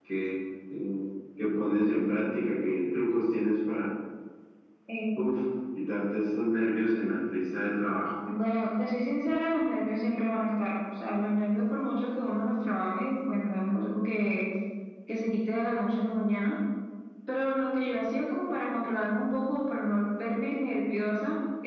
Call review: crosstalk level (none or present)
none